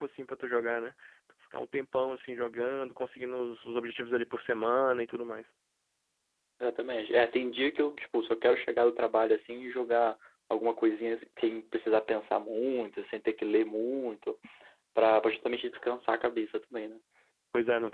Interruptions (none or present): none